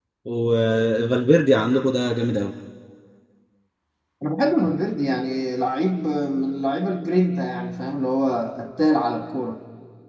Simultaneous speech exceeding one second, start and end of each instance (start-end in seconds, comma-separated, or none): none